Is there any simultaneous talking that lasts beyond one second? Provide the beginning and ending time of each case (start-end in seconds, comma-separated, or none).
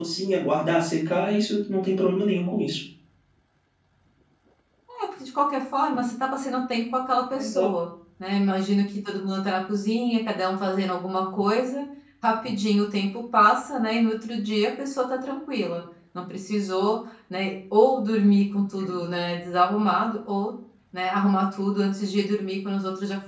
none